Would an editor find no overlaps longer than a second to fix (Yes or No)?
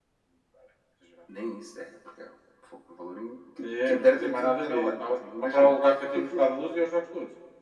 No